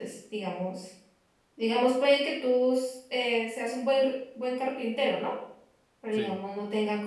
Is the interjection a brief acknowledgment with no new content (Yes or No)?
Yes